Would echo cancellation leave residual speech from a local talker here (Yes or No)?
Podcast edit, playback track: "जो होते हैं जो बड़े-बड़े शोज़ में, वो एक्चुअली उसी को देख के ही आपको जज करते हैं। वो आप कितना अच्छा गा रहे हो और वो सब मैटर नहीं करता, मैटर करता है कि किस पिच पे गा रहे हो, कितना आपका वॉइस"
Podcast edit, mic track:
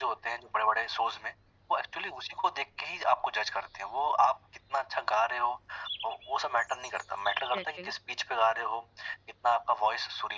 Yes